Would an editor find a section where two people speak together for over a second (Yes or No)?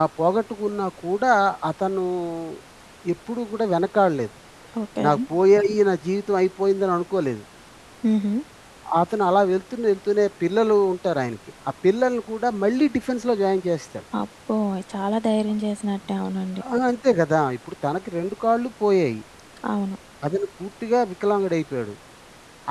No